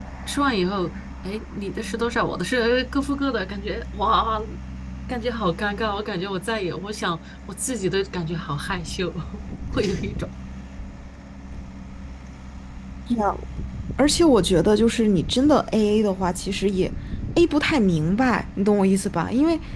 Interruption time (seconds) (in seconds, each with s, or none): none